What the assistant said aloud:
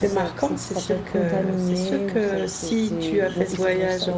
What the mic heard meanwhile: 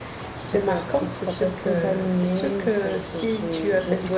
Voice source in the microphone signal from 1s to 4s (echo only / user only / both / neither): echo only